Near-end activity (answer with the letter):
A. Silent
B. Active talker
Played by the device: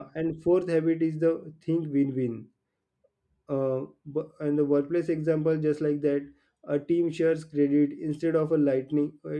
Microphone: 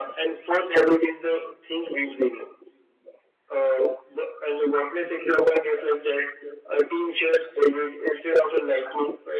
A